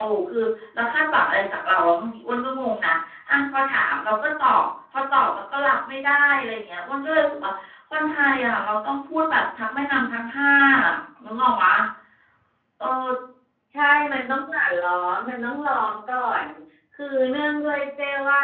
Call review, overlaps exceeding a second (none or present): none